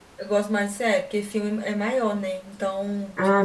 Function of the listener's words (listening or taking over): listening